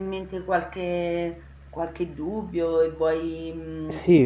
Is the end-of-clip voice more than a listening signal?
Yes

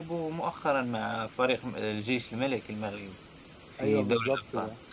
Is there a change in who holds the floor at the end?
Yes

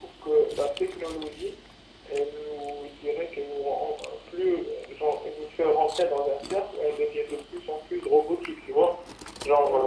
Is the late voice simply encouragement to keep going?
Yes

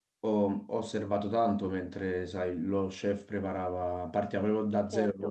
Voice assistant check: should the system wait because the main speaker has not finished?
Yes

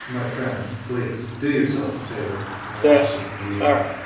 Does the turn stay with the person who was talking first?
No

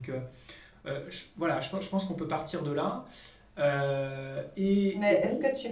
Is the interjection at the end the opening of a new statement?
Yes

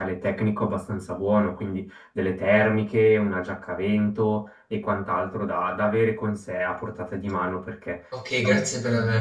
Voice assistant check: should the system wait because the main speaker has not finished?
No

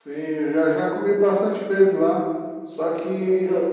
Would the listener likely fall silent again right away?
Yes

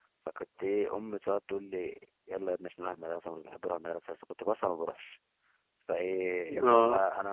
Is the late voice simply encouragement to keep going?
Yes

